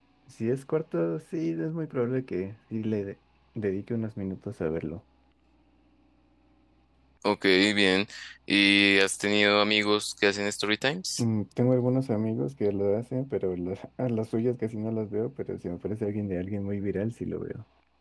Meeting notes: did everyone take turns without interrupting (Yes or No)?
Yes